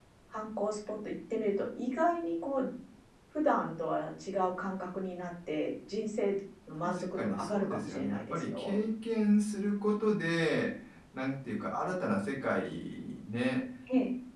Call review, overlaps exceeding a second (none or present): present